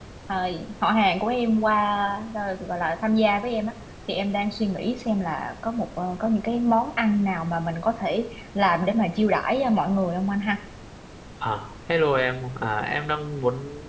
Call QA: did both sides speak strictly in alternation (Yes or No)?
Yes